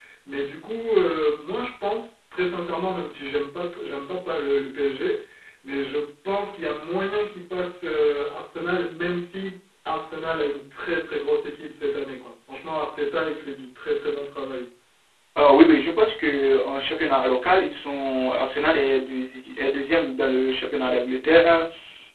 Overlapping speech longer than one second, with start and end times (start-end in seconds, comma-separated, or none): none